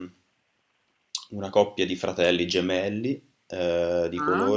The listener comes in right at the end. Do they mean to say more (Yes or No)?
No